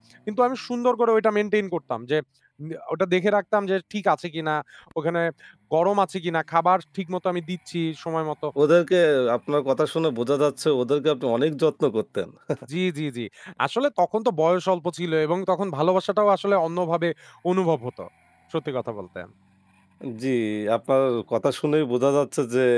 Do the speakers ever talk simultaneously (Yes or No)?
No